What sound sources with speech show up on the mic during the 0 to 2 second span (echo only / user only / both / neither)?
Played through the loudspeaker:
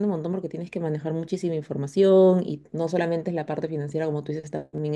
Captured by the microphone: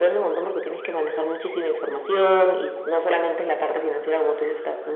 echo only